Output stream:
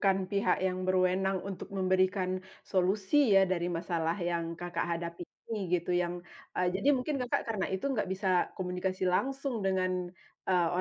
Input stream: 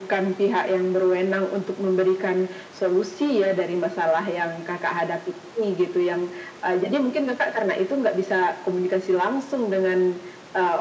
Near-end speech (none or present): none